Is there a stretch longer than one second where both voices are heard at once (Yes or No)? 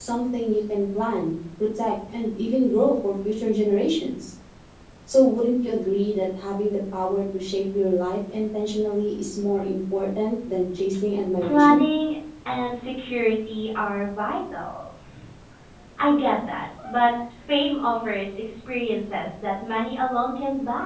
No